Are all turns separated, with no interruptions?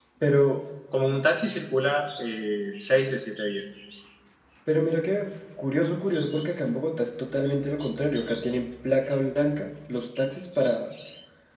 Yes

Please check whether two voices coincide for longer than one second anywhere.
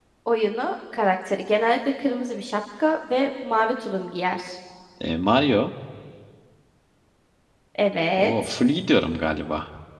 No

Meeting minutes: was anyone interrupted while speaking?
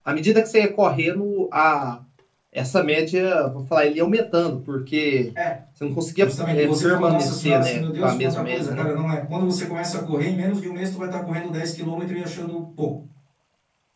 Yes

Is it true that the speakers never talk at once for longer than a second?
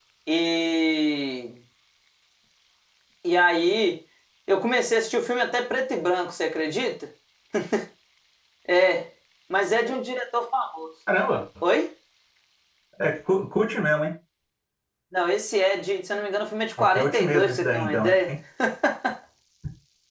No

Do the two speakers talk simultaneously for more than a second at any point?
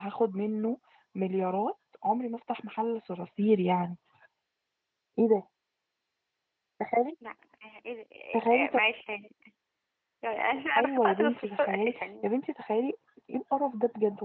Yes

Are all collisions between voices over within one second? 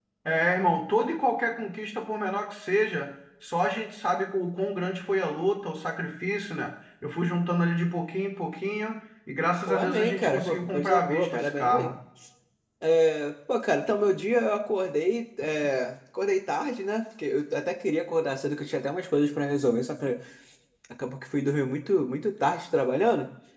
No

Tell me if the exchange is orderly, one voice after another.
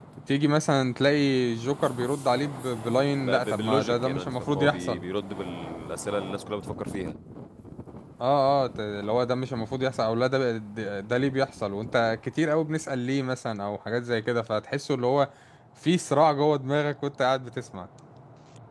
No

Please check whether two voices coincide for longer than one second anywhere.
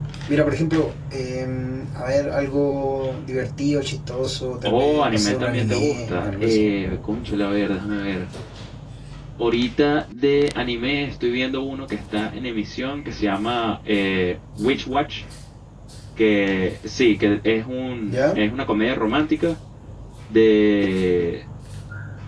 Yes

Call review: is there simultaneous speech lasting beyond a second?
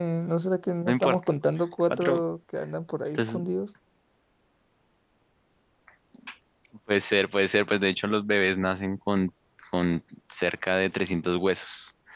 No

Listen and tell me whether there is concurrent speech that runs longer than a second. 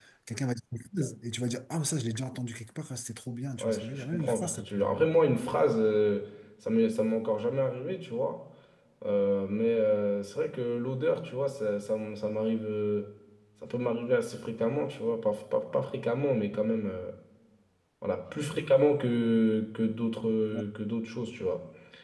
Yes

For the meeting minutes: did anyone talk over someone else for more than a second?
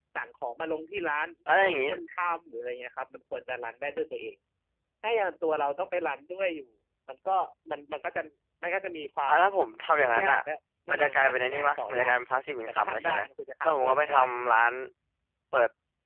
Yes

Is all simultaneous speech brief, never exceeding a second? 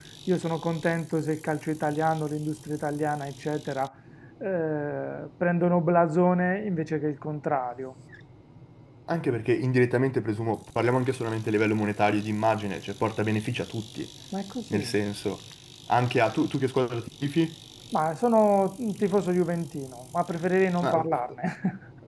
Yes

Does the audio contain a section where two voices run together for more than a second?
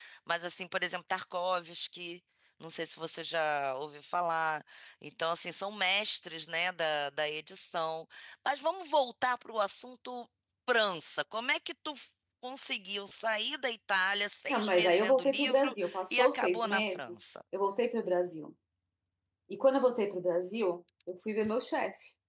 Yes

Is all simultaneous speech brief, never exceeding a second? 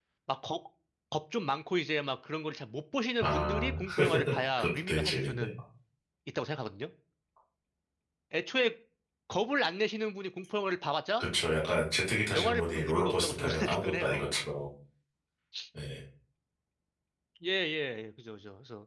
No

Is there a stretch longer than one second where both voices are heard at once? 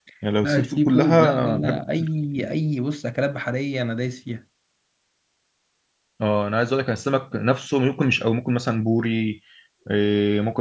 Yes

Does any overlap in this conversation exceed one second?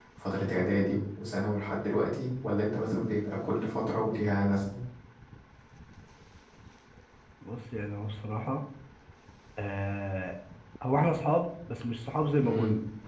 No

